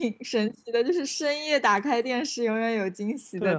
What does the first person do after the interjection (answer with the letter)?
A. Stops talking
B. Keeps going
A